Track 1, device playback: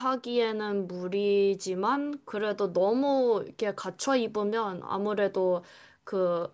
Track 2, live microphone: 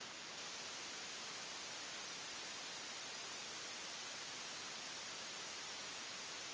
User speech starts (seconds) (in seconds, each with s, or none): none